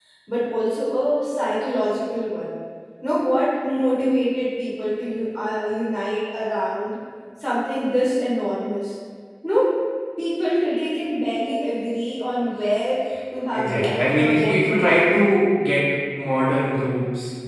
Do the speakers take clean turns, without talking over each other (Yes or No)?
No